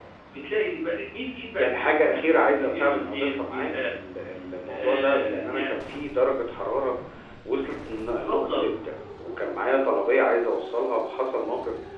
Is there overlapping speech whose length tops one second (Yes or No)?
Yes